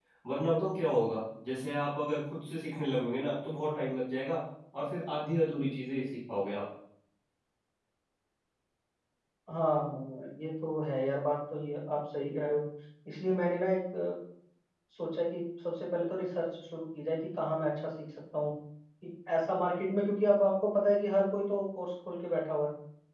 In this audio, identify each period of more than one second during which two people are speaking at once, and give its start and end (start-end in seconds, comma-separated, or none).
none